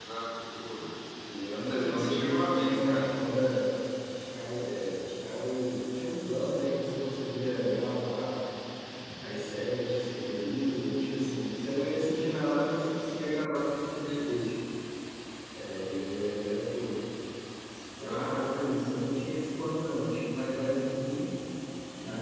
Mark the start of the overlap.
1.5 s

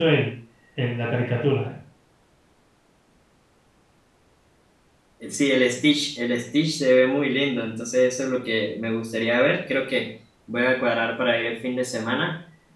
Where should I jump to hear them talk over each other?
none

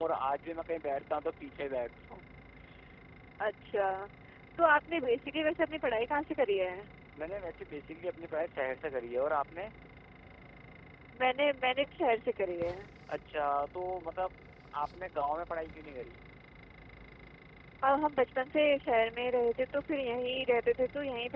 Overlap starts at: none

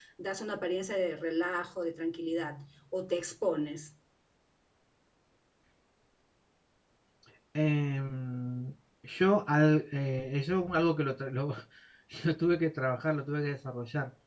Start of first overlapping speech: none

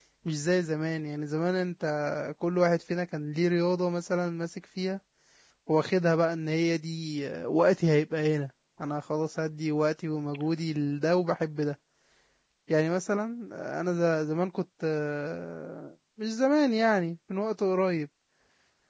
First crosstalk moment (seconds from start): none

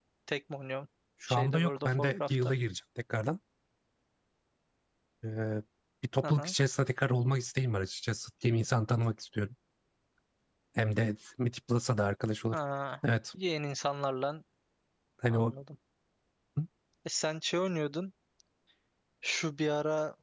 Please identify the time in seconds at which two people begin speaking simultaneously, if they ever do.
1.3 s

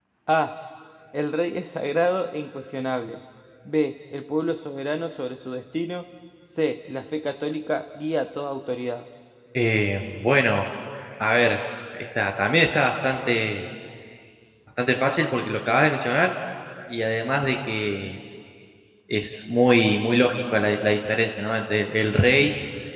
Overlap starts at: none

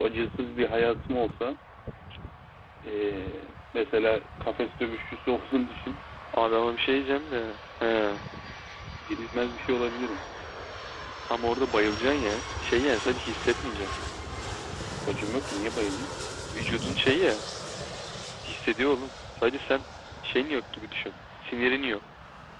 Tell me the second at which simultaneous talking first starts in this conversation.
none

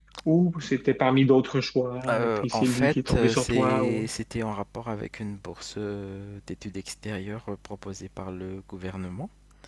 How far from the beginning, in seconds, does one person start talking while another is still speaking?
2.1 s

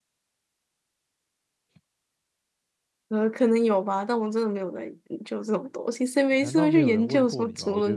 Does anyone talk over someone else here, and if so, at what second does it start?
6.3 s

